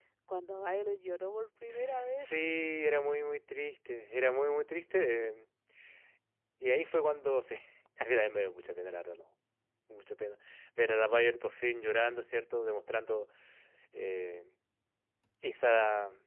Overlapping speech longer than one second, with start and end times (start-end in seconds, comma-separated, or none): none